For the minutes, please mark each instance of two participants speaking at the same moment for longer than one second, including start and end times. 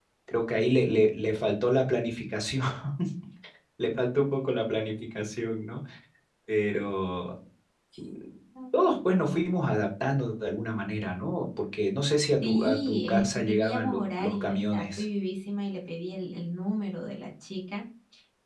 12.4-15.1

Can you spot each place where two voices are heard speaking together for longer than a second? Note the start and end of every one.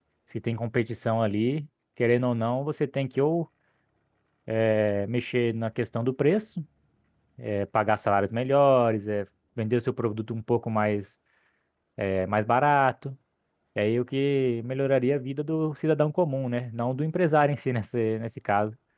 none

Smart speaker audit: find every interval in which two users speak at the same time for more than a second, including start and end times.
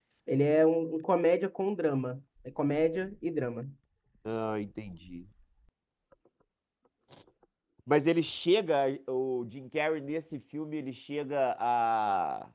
none

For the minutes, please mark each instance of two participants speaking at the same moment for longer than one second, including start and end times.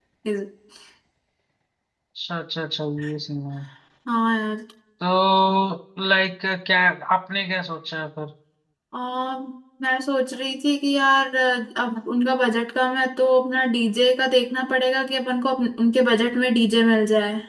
none

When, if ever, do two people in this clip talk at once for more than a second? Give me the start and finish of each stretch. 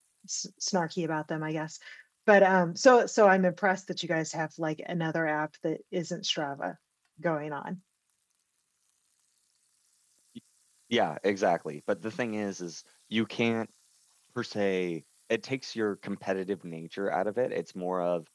none

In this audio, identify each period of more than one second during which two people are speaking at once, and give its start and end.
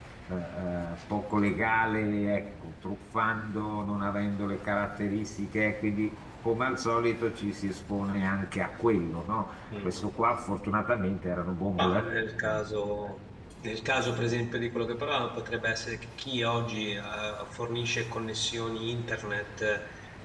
none

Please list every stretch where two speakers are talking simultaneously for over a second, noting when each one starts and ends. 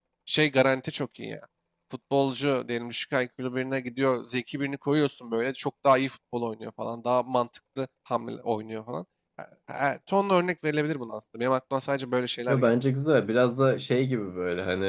none

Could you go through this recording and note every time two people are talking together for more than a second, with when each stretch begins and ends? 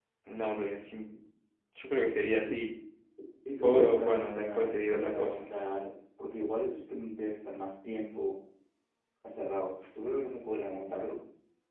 3.6-5.4

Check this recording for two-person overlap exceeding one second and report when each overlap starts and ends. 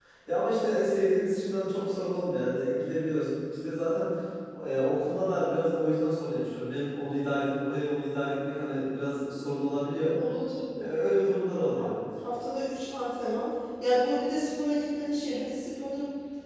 none

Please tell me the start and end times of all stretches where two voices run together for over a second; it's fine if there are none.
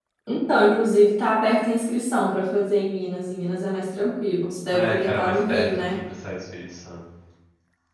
4.7-6.0

